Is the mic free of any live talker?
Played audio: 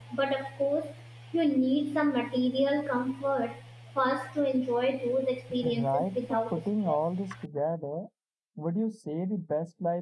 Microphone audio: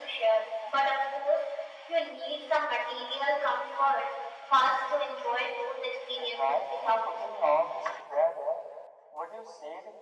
Yes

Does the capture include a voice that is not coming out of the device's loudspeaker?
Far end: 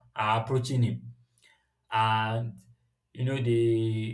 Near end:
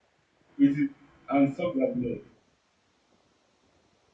Yes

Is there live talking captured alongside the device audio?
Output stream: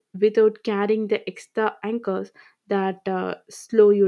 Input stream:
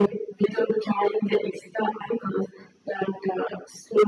No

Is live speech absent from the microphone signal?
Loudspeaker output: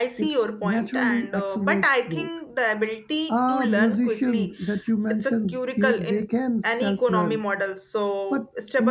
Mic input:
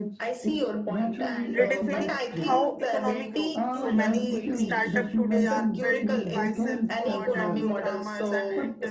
No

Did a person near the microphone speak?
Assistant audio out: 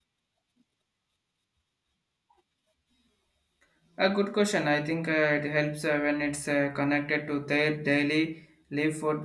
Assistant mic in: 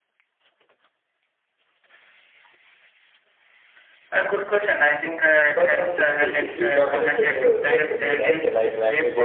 Yes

